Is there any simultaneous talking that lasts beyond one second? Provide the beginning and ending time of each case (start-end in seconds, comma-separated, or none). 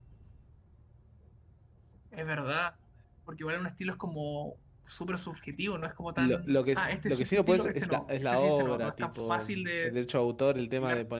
6.2-9.9